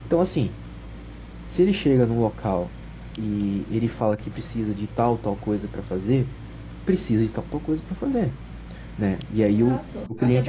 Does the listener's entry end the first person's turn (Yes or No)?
Yes